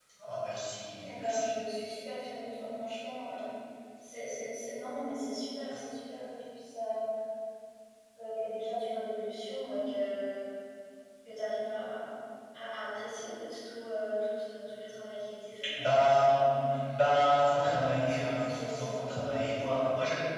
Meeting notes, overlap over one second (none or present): present